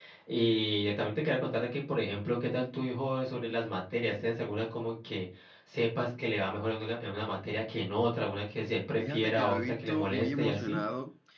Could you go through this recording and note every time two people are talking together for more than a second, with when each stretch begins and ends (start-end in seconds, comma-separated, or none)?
9.0-10.8